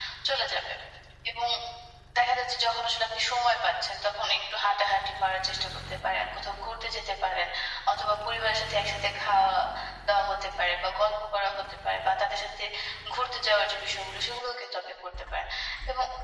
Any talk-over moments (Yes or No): No